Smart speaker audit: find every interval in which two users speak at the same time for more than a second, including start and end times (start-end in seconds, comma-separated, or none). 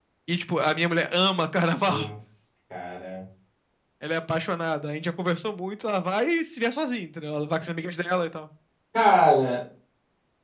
none